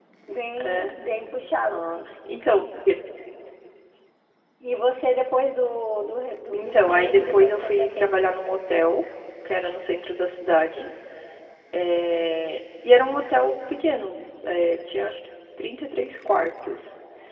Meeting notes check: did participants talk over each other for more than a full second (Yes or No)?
Yes